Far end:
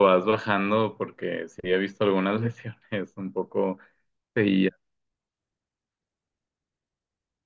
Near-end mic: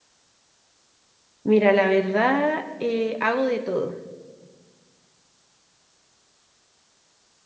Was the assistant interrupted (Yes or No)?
Yes